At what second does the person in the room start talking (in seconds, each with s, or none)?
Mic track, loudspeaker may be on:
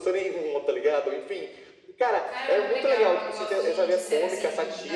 2.2 s